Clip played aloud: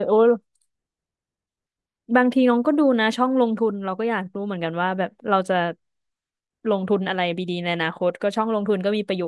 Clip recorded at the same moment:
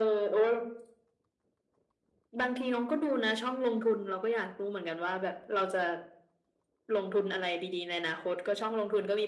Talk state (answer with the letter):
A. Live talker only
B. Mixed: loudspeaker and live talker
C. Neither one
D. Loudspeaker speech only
D